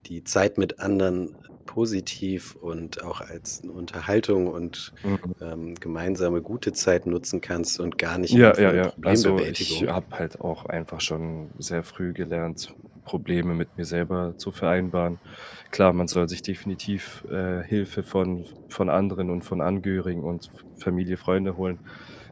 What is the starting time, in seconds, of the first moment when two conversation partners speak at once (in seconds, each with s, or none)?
8.3 s